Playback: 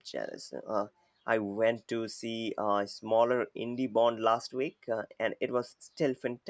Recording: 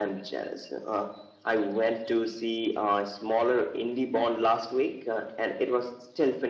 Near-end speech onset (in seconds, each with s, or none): none